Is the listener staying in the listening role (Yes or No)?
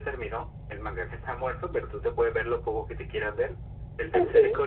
Yes